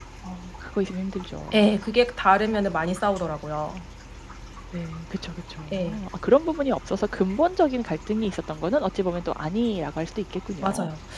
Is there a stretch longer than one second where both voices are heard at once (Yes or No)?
No